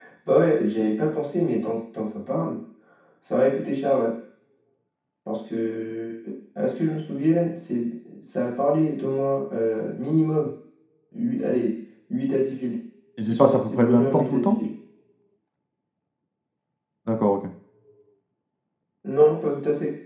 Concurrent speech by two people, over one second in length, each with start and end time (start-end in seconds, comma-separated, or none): 13.3-14.6